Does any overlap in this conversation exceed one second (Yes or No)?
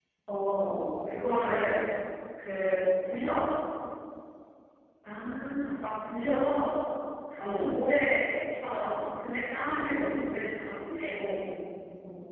No